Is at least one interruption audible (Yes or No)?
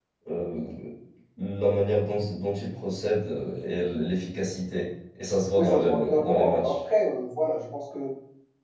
Yes